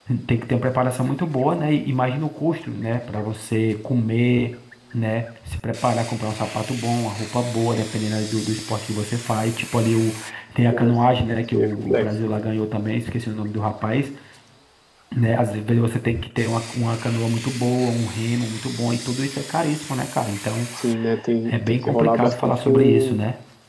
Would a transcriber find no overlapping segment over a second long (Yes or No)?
No